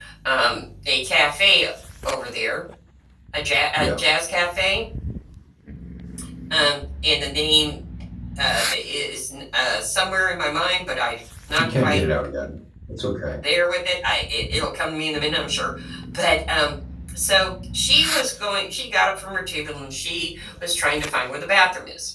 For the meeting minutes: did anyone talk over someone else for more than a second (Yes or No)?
No